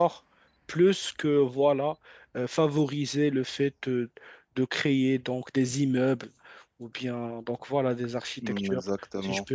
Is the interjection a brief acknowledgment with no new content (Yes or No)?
No